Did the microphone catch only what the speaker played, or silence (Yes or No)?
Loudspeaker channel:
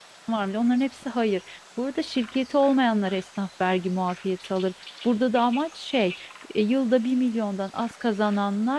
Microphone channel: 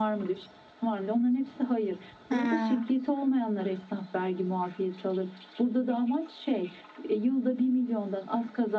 No